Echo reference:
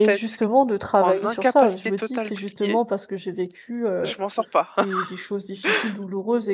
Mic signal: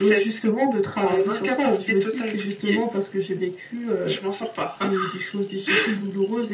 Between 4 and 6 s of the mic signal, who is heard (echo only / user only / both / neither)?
echo only